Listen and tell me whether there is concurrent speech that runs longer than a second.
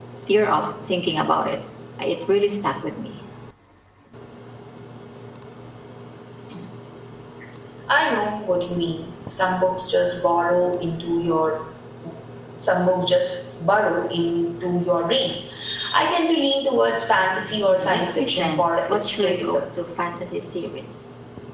Yes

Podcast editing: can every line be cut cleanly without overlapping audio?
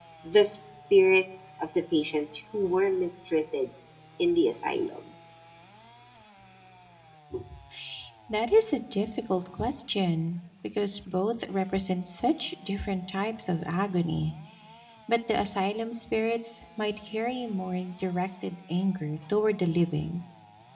Yes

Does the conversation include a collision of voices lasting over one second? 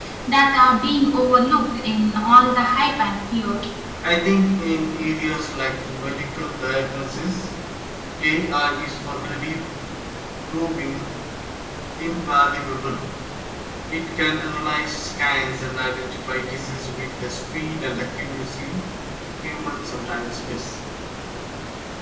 No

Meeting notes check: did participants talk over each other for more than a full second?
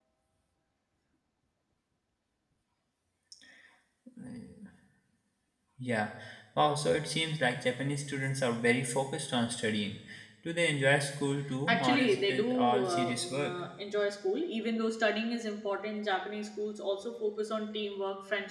Yes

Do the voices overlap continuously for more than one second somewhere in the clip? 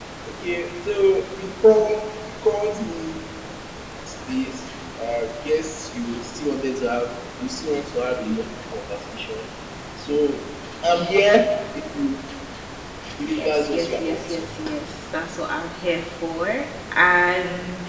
Yes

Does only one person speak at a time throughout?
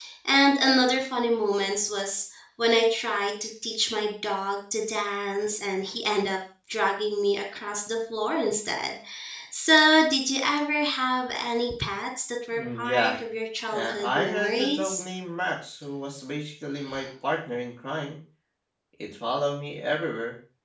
No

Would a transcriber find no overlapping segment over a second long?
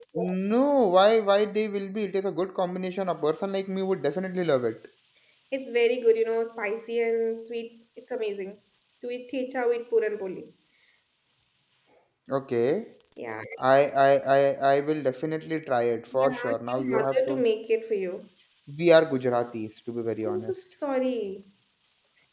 No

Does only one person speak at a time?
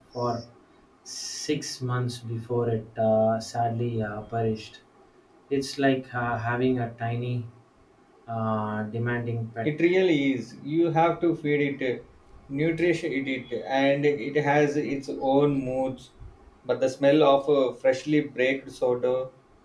Yes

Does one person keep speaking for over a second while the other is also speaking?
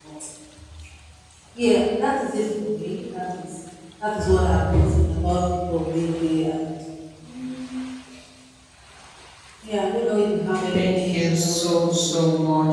Yes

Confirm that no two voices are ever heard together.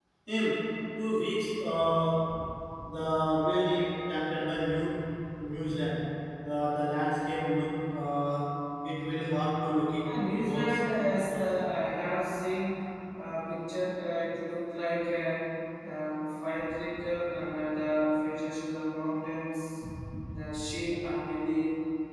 No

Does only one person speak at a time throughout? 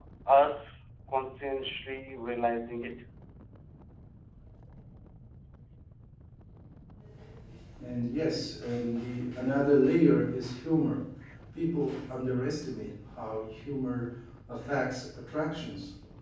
Yes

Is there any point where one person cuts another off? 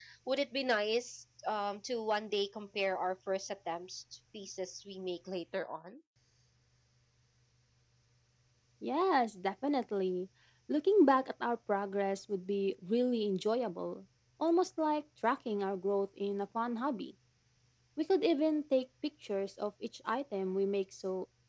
No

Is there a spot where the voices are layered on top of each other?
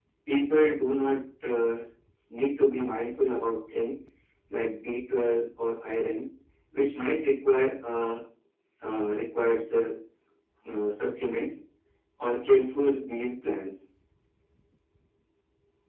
No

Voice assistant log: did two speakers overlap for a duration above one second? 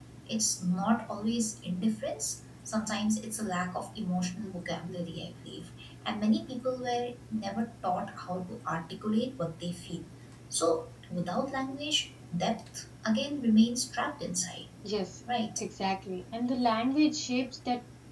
No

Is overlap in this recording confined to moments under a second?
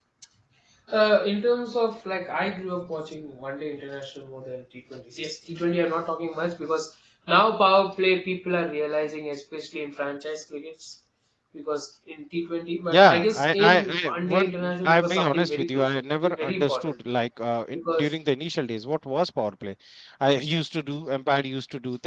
No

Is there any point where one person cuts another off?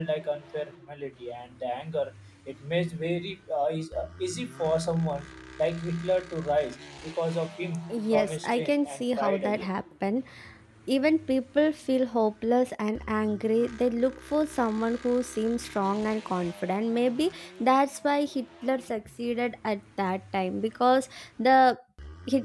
Yes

